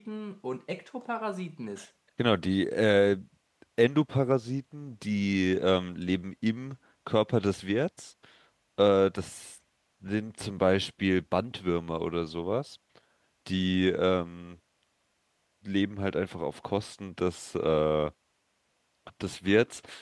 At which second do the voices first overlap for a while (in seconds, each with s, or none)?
none